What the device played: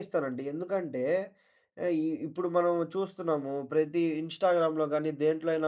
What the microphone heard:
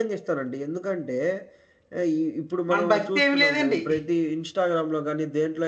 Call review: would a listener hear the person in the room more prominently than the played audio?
Yes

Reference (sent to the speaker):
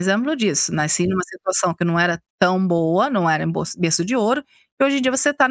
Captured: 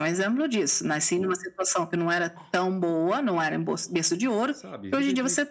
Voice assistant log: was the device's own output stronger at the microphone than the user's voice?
Yes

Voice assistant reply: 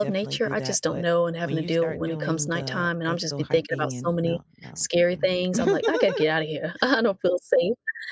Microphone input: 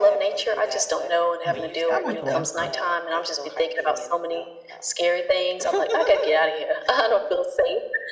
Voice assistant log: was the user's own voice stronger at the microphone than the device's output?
No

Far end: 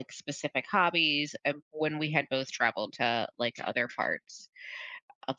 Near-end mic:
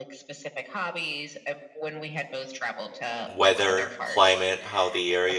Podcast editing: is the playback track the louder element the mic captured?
No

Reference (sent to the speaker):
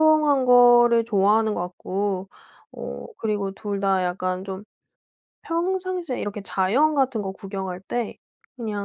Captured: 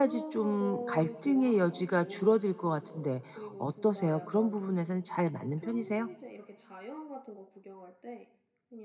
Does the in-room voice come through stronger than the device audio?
Yes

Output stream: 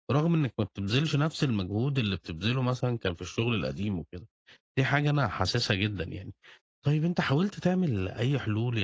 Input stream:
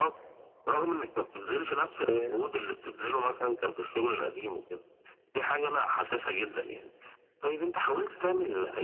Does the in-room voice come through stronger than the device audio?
Yes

